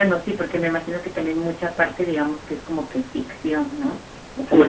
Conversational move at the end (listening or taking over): listening